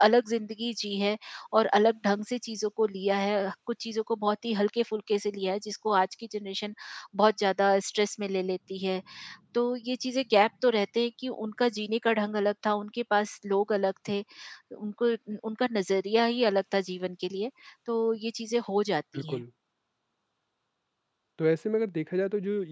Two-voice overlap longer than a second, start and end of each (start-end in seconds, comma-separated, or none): none